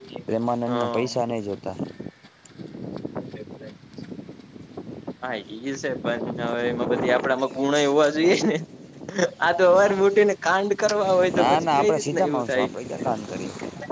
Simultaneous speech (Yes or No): Yes